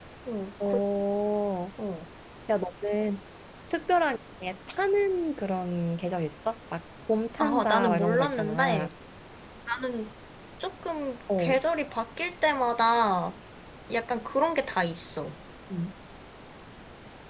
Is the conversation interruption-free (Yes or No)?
No